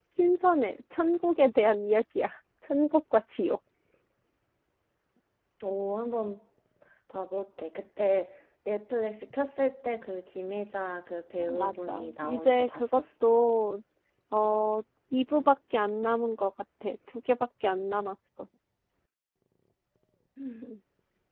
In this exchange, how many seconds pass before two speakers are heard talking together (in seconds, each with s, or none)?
11.4 s